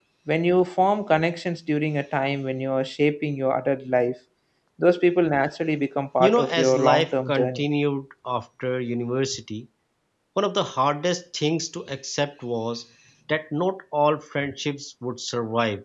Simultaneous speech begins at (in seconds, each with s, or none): 6.2 s